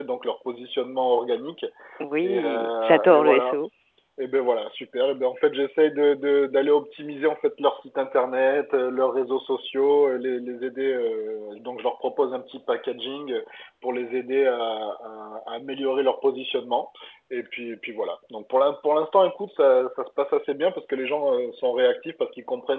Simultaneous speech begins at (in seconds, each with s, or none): 2.2 s